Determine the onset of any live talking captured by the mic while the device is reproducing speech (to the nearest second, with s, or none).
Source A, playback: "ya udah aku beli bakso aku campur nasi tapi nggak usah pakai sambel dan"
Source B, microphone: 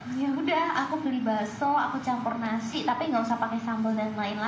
none